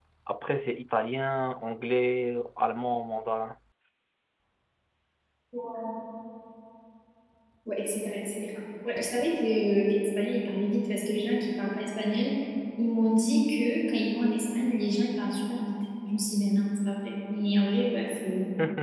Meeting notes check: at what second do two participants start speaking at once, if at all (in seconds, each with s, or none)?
none